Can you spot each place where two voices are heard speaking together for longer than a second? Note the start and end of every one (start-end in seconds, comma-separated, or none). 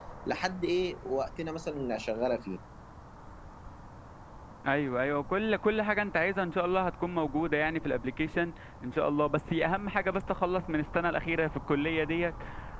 none